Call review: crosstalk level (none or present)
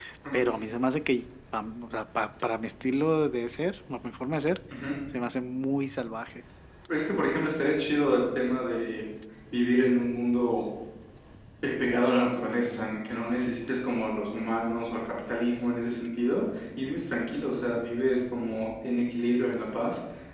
none